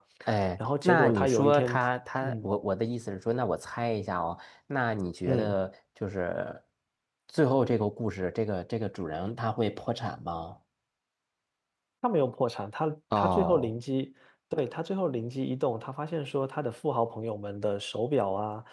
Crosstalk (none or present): present